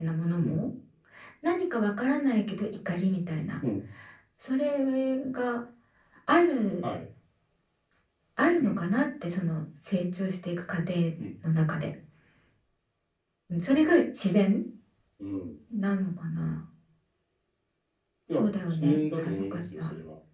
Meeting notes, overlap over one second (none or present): present